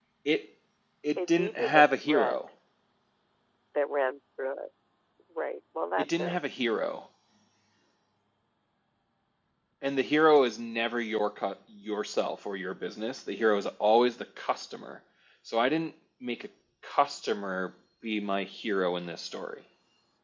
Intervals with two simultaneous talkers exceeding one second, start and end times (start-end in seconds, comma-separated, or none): 1.2-2.4